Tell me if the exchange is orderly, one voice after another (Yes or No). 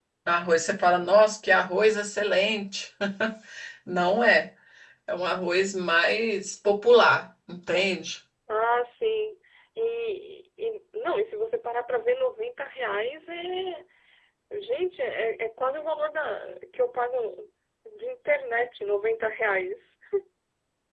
Yes